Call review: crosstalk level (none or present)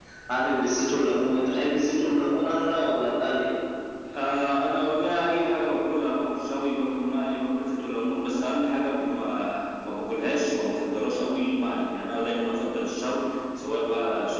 none